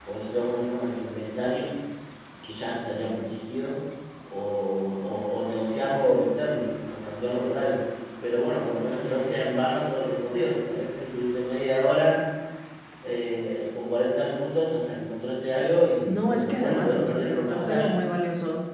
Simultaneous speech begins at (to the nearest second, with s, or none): 16 s